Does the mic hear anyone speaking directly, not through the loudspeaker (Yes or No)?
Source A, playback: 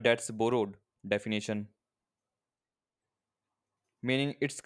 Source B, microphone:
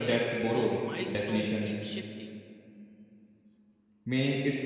Yes